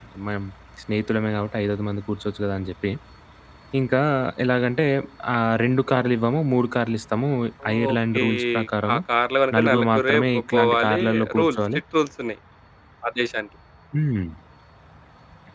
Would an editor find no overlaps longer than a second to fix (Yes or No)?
No